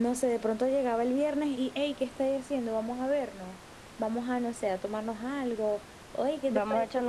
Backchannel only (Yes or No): No